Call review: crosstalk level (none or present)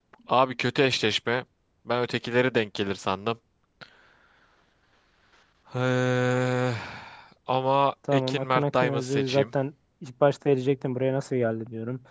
present